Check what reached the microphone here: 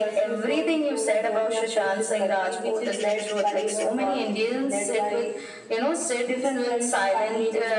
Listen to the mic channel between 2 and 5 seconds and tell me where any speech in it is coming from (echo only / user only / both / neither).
echo only